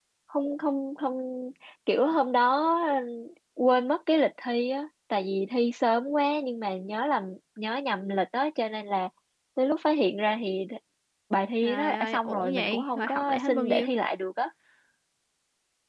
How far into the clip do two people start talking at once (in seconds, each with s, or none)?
11.6 s